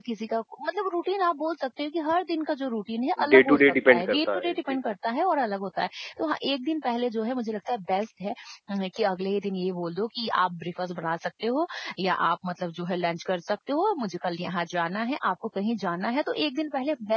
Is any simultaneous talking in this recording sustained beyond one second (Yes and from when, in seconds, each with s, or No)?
Yes, from 3.2 s